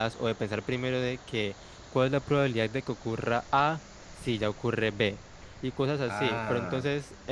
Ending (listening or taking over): listening